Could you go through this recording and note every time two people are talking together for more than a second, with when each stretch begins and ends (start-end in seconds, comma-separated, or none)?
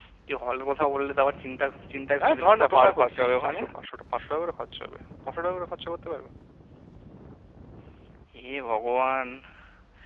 2.3-3.6